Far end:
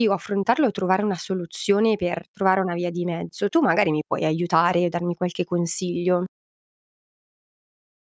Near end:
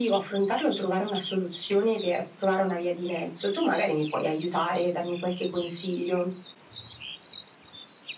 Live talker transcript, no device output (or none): none